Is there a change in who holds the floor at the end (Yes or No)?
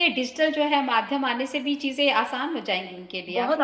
Yes